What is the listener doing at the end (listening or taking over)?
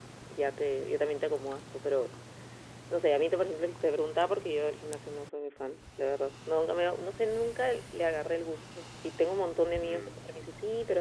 listening